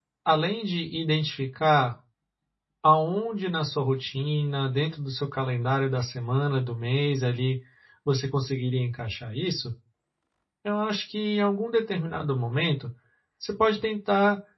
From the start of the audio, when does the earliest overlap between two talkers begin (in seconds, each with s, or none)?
none